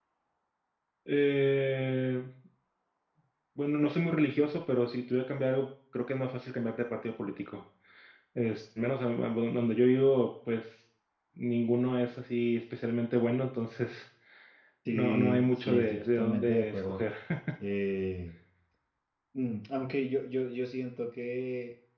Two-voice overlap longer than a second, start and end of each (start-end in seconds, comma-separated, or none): 14.9-17.0